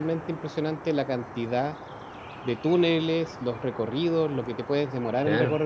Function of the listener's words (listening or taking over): taking over